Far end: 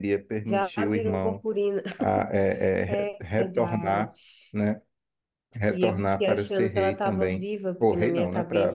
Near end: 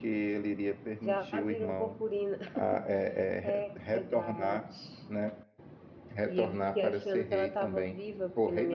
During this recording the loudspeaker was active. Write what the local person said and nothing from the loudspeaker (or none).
none